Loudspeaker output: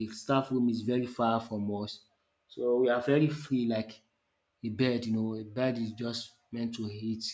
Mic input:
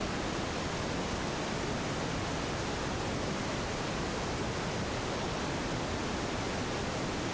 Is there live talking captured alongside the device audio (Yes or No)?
No